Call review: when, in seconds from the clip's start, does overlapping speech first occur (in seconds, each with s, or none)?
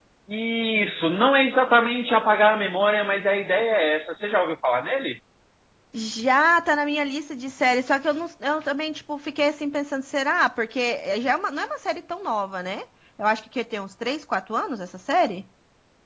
none